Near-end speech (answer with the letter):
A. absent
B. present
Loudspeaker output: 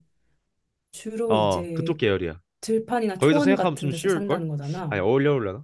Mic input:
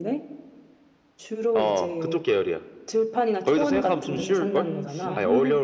B